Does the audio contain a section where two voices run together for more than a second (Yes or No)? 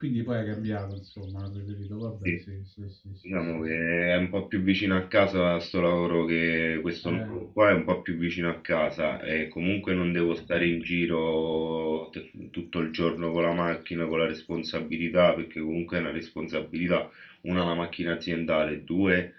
No